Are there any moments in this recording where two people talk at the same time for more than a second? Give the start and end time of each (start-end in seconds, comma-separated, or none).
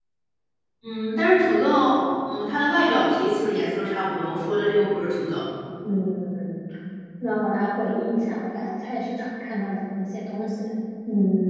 none